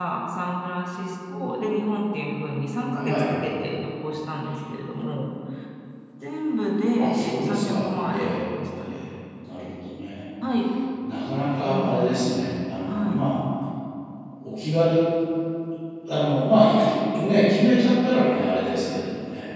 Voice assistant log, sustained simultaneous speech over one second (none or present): present